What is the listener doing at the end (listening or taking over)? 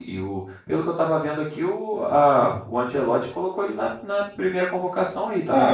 taking over